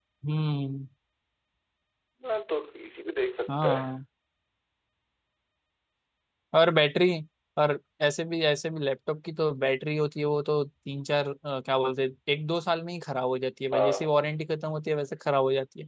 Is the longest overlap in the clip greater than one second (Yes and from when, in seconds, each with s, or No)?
No